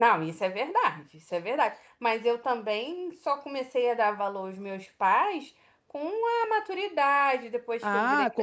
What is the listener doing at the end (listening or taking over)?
taking over